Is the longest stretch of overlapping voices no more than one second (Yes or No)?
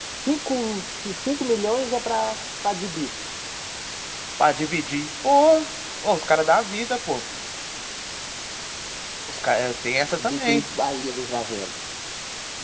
Yes